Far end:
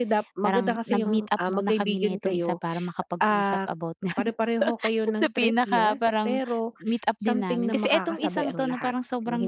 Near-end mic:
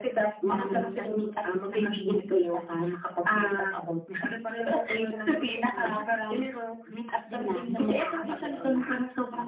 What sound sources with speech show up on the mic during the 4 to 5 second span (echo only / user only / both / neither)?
echo only